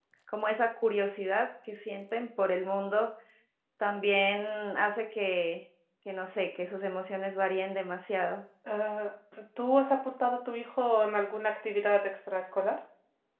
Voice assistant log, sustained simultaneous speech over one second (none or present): none